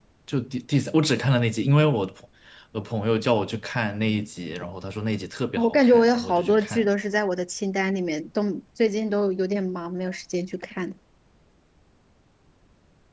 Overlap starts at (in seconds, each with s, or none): 5.6 s